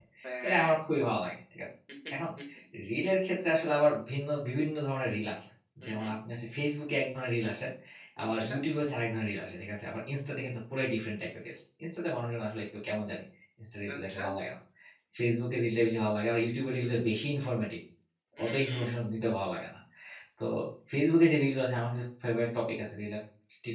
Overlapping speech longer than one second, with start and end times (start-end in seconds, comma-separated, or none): none